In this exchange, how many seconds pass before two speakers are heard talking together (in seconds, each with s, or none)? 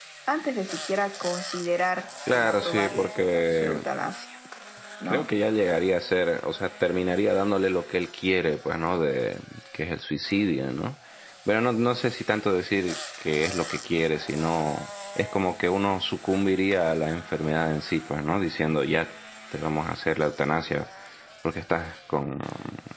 2.3 s